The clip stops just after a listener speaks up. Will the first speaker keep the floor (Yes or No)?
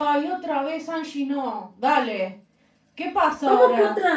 No